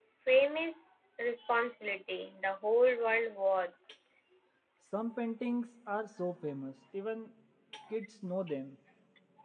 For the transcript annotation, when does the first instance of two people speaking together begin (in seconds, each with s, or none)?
none